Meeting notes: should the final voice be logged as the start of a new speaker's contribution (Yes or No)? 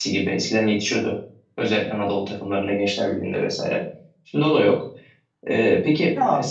Yes